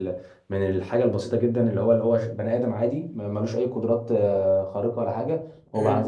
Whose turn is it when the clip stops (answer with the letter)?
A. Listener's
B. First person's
B